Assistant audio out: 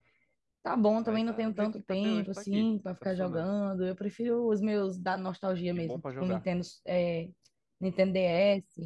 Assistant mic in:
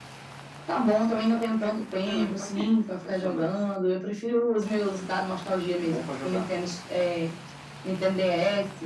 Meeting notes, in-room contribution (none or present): none